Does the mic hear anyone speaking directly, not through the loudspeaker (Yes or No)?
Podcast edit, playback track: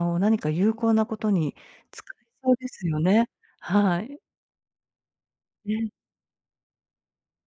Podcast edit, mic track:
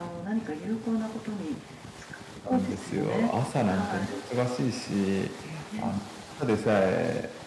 Yes